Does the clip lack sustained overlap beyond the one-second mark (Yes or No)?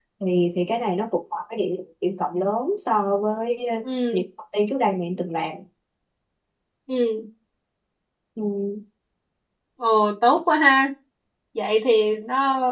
Yes